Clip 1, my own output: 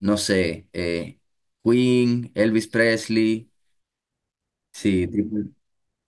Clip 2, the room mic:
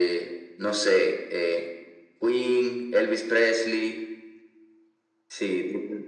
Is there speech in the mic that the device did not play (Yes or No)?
No